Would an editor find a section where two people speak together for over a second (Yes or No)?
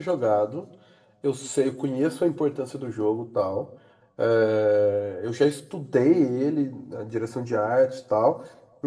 No